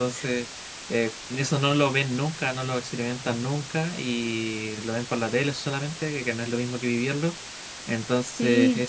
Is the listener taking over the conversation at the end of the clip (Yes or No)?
No